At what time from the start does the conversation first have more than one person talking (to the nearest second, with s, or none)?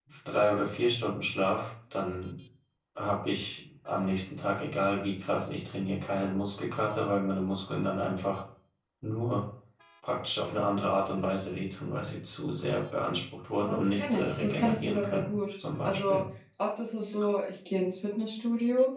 14 s